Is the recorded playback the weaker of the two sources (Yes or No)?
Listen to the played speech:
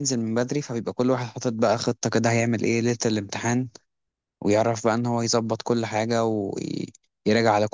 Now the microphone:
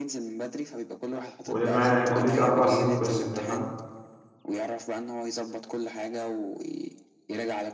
Yes